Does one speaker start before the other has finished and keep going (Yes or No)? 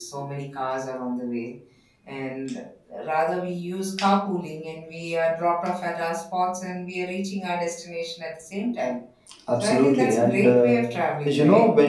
Yes